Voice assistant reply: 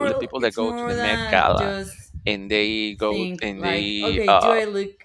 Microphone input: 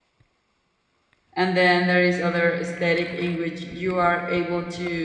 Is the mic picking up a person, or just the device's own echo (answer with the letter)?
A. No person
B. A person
B